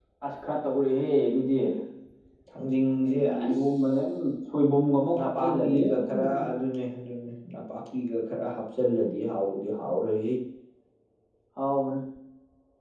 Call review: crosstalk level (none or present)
present